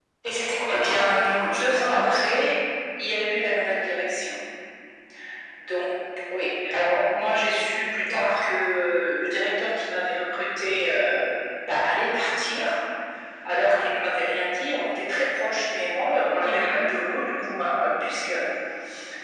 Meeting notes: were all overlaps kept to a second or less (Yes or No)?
No